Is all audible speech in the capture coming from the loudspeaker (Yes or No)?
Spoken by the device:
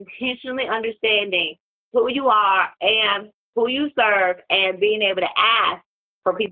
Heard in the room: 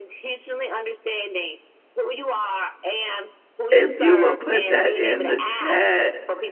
No